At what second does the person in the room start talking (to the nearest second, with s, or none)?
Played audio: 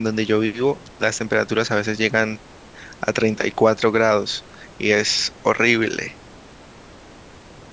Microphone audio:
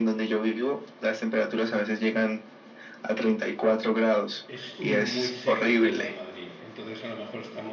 4 s